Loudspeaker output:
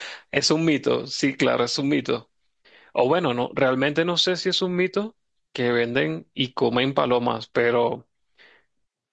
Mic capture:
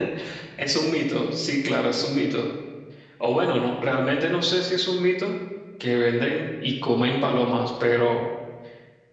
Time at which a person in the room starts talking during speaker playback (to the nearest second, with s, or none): none